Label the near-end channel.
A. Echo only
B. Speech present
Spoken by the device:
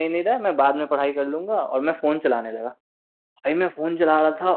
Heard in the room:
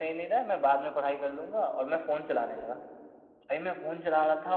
A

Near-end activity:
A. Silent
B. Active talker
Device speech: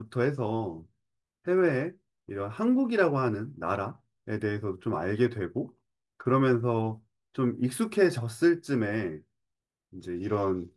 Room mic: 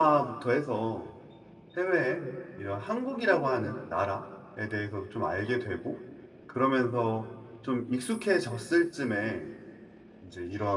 A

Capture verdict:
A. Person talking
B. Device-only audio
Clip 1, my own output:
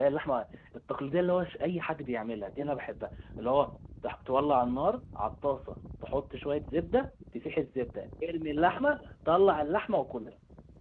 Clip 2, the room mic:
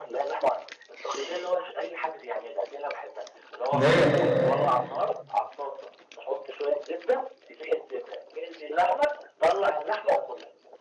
A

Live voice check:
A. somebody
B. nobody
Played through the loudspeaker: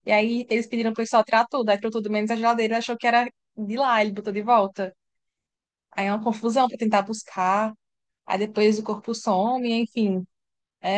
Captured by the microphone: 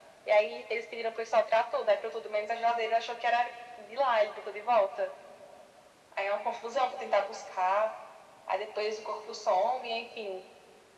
B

